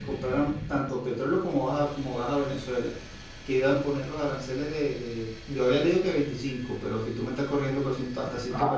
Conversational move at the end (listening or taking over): taking over